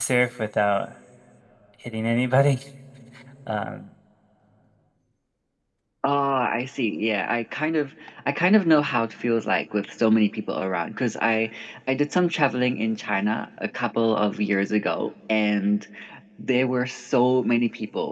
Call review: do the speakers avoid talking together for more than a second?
Yes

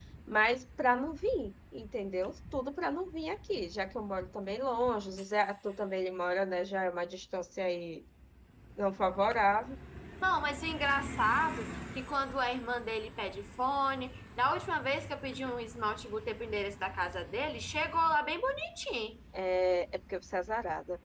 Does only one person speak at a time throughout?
Yes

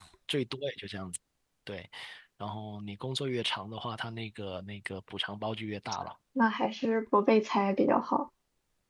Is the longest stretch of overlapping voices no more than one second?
Yes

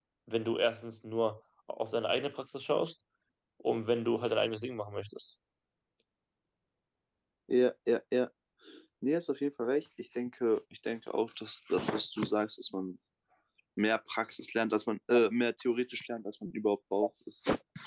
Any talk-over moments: No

